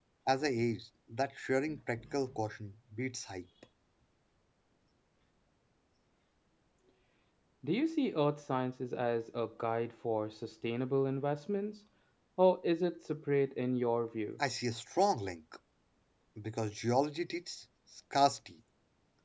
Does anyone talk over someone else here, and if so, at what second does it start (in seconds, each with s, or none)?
none